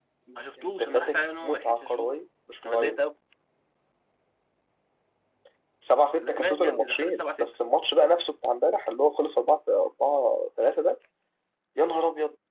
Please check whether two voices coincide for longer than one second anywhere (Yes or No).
Yes